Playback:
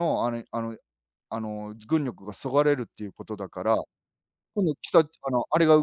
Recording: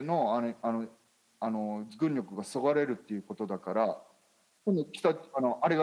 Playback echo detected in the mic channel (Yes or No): Yes